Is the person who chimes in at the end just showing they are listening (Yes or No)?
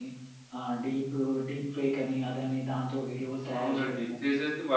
No